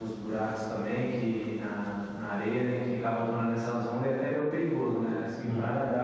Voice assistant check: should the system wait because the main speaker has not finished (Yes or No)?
Yes